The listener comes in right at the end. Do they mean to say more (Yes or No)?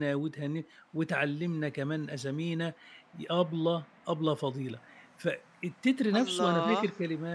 No